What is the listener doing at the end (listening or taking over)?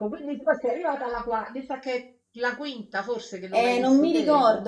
taking over